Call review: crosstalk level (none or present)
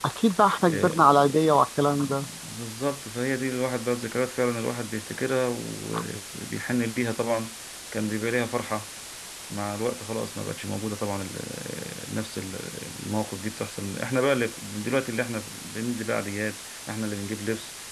present